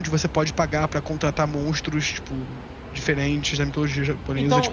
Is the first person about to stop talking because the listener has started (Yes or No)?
Yes